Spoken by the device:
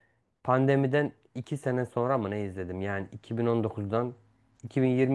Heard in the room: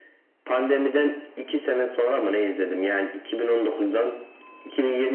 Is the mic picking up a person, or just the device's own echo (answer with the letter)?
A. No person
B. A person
A